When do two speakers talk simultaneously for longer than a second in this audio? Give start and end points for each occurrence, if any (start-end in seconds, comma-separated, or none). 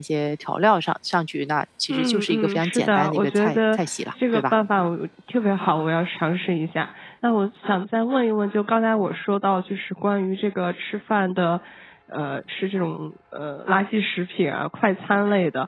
1.9-3.8